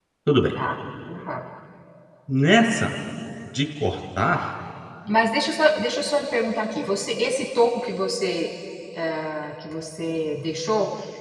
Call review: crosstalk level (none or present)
none